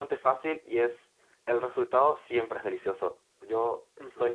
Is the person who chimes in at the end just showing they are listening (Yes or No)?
No